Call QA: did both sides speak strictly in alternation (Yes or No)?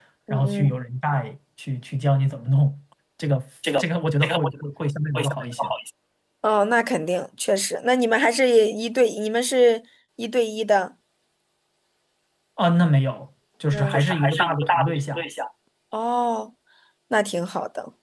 No